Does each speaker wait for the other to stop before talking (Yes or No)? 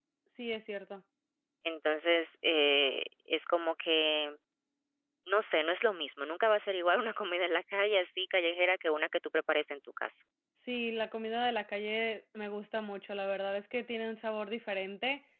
Yes